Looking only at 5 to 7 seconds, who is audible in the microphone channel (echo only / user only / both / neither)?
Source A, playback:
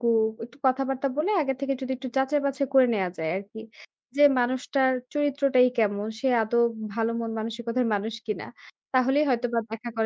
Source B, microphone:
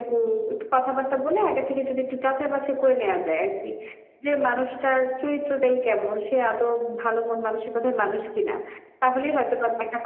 echo only